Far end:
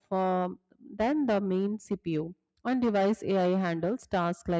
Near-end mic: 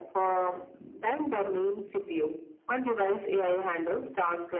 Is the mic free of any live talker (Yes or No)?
Yes